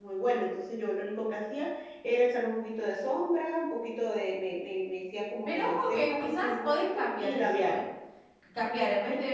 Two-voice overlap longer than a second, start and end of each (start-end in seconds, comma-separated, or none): 5.4-7.8